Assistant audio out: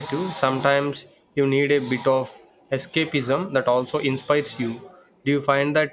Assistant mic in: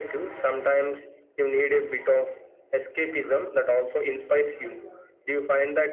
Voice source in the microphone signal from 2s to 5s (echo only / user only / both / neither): echo only